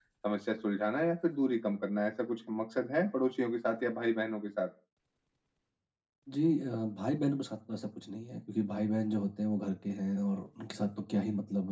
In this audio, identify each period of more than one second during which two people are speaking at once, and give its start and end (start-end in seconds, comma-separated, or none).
none